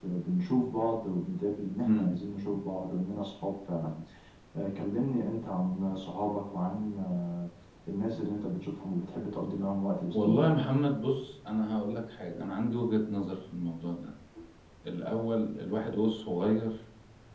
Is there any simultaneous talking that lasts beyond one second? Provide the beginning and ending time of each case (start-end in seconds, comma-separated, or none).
none